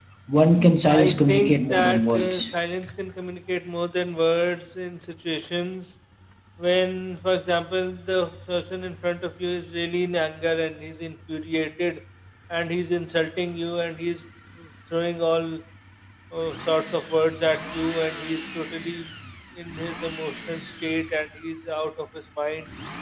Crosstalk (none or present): present